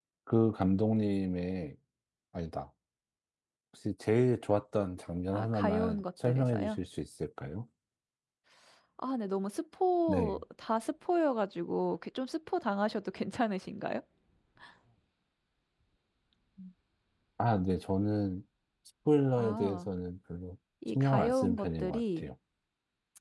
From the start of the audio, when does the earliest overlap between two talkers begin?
5 s

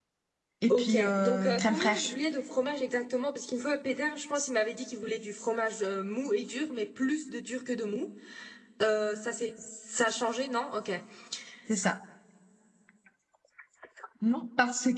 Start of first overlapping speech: 1 s

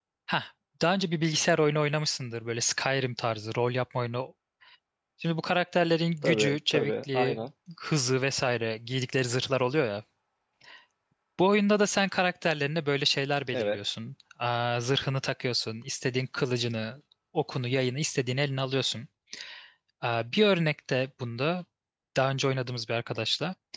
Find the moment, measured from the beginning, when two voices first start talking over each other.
6 s

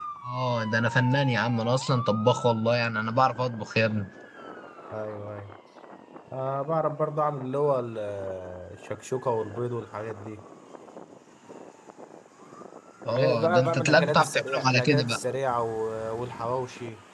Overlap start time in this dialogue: 13 s

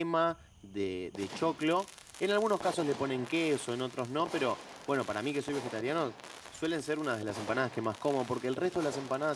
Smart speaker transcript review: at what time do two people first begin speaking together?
none

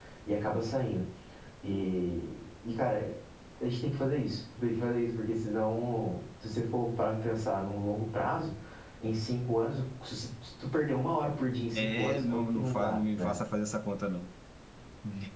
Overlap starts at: 12 s

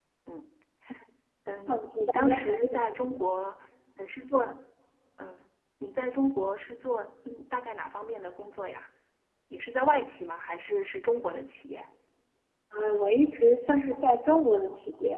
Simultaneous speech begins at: 2 s

